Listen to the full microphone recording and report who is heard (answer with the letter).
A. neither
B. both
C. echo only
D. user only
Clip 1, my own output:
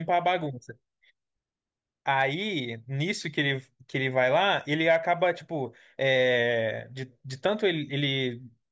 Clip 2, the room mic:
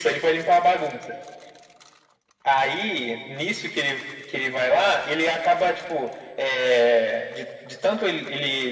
C